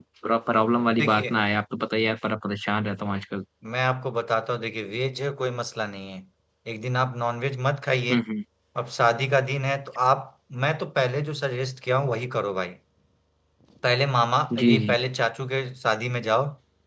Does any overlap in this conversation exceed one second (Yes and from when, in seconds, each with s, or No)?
No